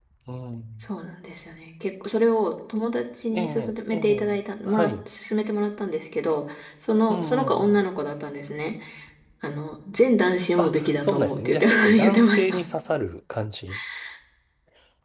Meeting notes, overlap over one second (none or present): present